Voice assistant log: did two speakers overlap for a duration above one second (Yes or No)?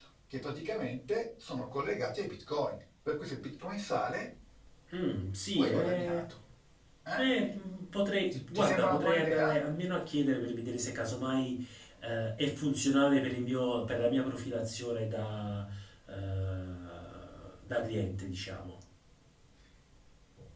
Yes